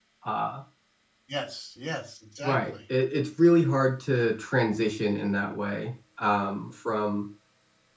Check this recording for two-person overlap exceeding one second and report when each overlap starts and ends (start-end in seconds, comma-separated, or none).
none